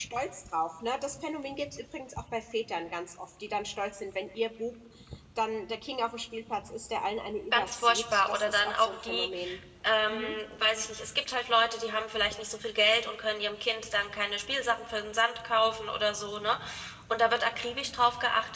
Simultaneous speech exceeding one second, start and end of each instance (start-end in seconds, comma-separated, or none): 7.5-9.3